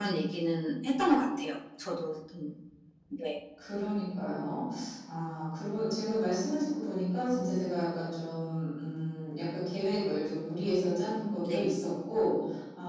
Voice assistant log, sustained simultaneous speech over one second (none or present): none